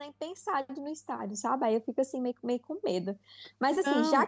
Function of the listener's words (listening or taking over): taking over